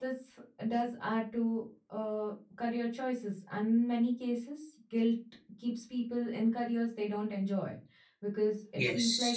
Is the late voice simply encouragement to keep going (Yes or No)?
No